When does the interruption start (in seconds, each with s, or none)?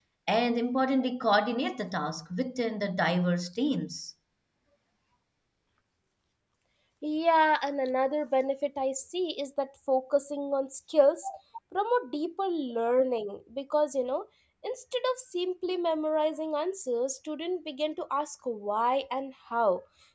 none